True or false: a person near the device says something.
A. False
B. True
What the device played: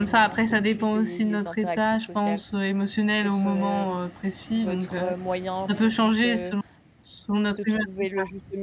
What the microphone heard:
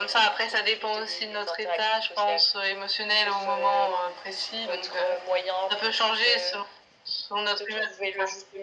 A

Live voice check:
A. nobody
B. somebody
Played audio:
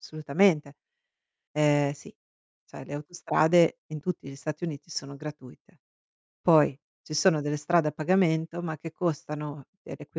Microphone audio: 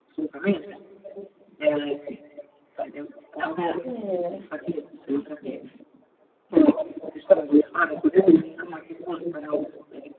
B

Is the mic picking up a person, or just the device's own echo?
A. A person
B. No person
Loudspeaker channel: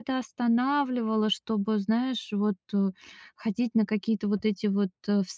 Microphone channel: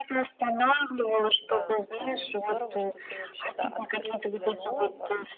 A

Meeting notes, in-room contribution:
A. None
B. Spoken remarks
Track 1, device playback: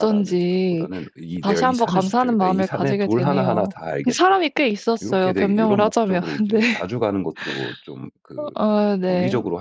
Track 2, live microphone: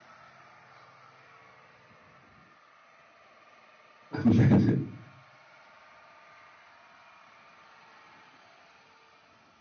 B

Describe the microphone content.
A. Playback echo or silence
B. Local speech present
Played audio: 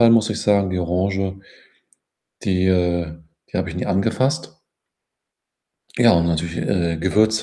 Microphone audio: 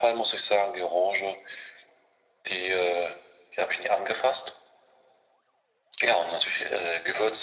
A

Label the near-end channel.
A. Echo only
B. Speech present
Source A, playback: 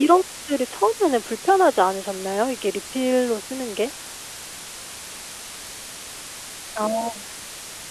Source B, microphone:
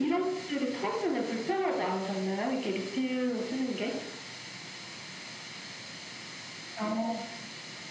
A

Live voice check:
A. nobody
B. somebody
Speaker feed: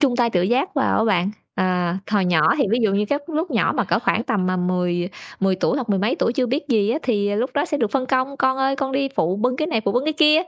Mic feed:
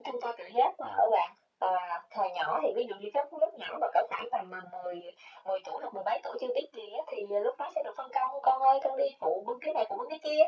A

